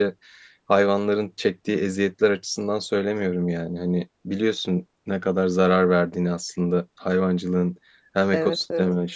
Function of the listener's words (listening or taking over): listening